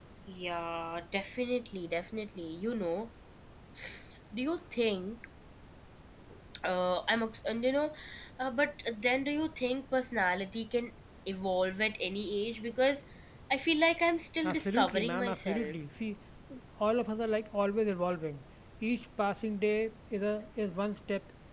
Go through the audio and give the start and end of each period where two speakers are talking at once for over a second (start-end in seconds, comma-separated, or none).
14.4-15.8